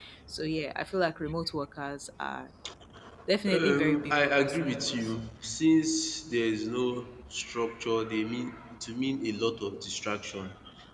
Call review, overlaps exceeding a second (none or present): present